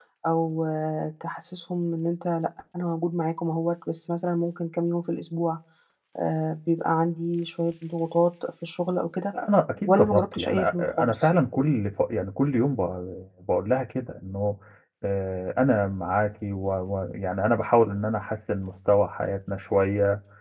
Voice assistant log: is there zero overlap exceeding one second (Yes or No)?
No